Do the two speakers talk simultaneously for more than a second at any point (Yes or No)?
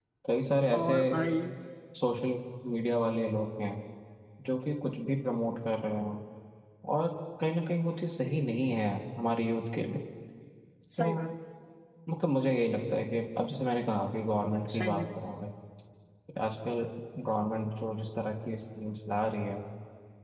No